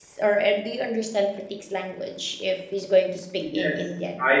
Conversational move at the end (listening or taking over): taking over